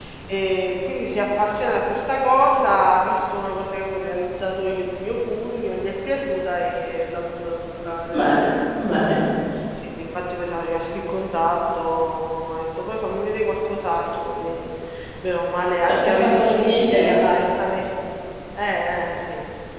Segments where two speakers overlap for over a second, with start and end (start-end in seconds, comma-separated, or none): 15.8-17.4